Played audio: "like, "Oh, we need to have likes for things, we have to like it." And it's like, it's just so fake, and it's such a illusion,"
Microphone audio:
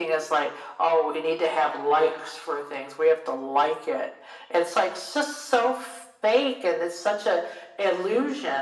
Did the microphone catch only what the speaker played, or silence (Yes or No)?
Yes